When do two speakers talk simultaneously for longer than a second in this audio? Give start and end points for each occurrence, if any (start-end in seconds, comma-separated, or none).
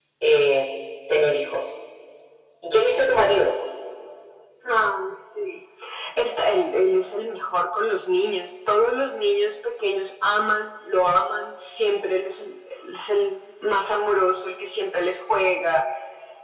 none